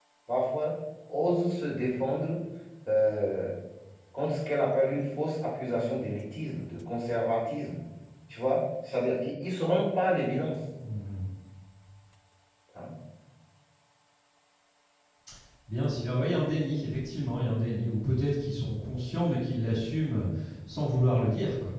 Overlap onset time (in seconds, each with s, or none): none